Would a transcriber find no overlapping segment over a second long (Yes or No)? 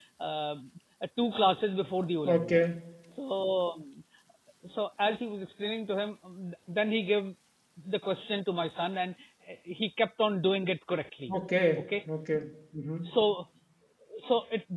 Yes